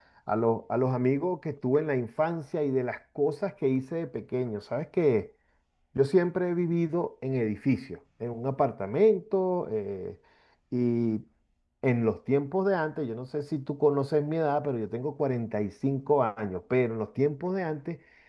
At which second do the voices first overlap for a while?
none

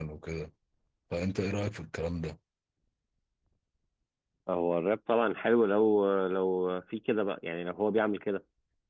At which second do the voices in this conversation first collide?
none

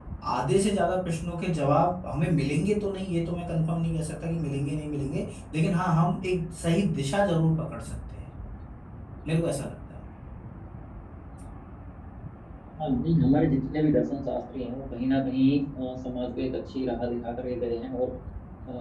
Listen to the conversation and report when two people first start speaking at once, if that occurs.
none

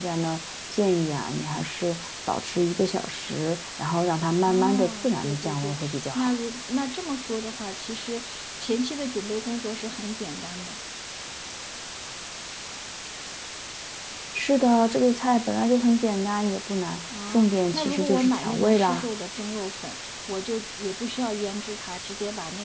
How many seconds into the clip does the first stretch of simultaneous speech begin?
4.5 s

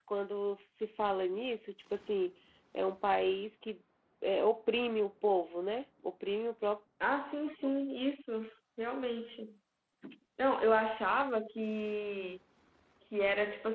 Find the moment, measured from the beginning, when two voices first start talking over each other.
none

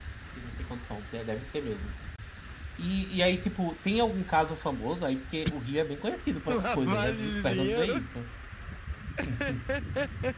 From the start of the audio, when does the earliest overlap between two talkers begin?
6.5 s

